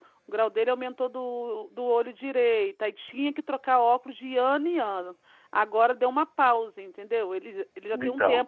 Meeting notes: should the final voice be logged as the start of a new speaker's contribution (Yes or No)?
No